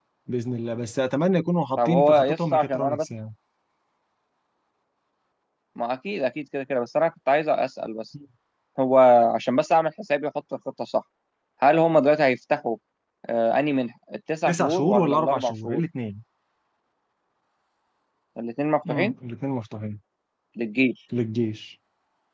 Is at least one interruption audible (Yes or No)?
Yes